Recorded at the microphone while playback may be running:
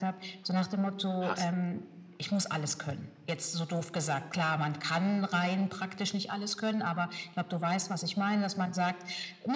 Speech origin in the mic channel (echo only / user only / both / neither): both